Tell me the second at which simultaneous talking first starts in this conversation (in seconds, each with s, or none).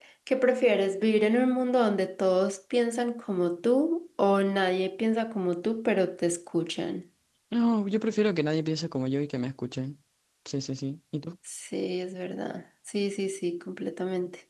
none